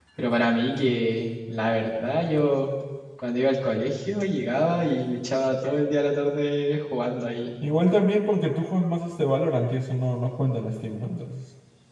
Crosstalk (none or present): none